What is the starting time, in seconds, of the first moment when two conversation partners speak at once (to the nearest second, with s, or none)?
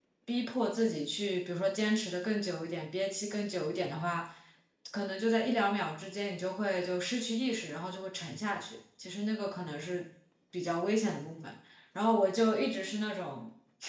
none